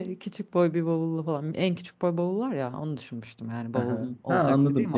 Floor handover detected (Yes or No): Yes